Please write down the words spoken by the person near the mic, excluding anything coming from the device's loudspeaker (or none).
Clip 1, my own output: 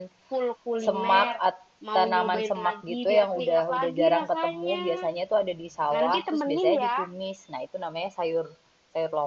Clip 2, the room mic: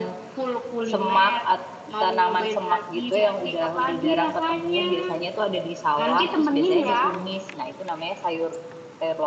none